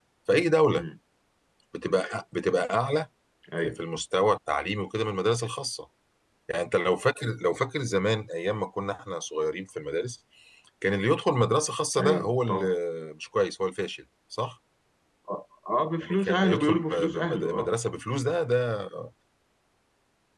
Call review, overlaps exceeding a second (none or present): present